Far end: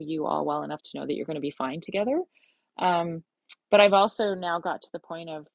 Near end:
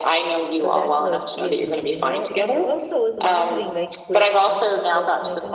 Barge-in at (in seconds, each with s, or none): 0.6 s